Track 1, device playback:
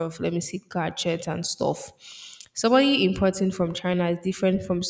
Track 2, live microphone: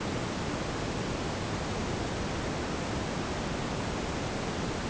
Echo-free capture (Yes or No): Yes